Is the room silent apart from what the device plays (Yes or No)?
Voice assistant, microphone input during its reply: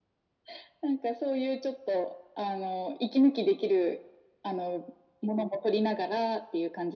Yes